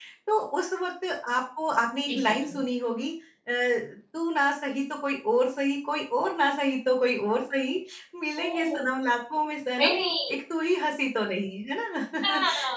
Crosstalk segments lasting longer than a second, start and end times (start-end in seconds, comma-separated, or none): none